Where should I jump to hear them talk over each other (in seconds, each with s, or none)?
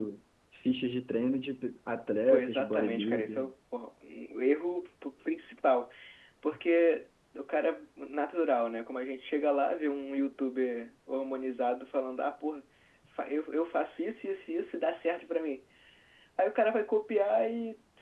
2.3 s